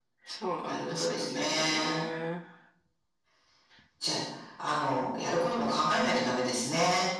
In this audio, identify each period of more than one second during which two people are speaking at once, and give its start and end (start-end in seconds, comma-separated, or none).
0.7-2.0